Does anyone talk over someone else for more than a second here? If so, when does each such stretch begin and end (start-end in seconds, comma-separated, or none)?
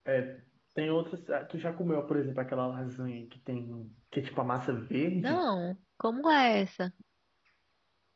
none